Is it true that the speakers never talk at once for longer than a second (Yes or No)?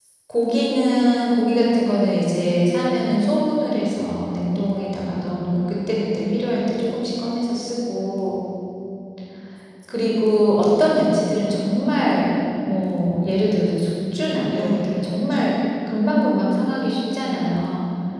No